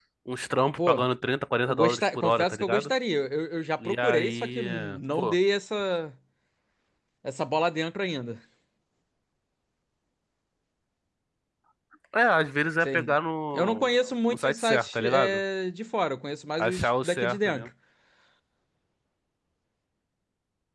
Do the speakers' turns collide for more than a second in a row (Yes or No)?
Yes